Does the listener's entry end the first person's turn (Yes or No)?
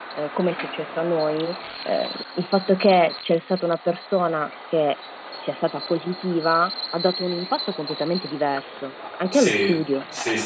Yes